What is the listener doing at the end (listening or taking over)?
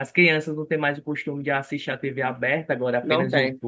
listening